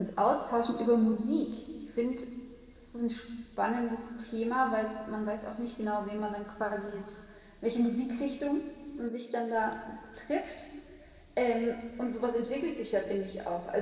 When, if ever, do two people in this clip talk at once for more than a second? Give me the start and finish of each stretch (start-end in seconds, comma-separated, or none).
none